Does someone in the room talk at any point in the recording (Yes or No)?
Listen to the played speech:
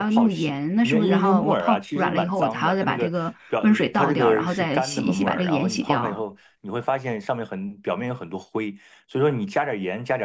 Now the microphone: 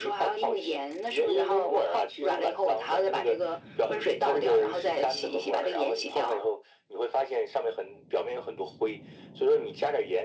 No